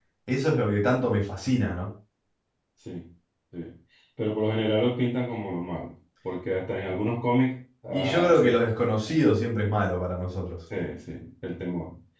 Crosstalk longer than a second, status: present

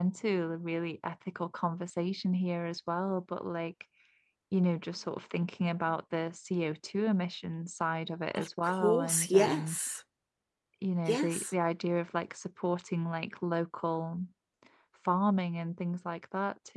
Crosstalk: present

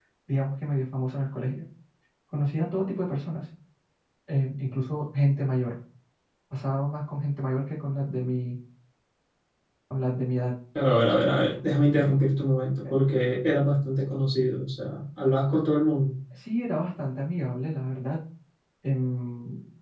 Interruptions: none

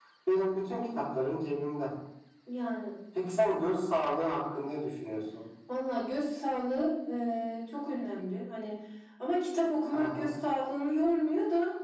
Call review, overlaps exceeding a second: none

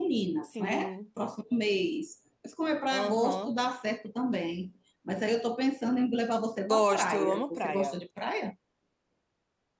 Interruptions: present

